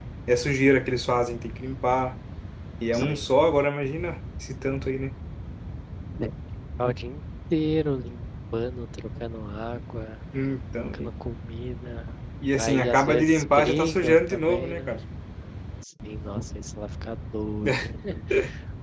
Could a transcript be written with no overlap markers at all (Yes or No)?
No